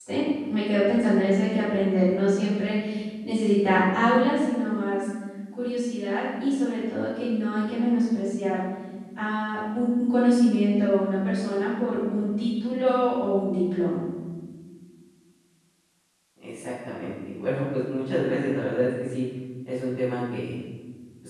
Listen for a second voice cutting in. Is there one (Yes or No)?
No